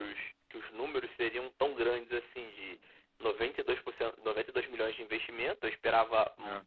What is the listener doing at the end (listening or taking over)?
listening